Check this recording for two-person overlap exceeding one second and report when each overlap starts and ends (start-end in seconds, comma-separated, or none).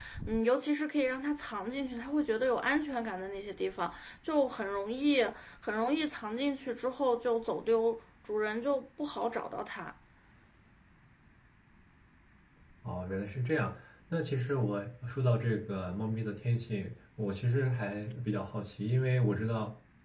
none